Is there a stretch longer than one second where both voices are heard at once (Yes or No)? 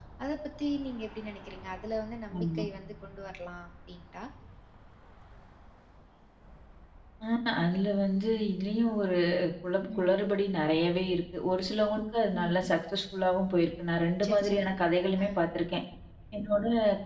No